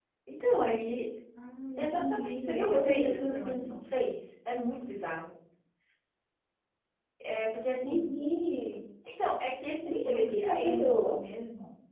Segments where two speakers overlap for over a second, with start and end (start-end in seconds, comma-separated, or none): 1.8-3.7, 9.8-11.1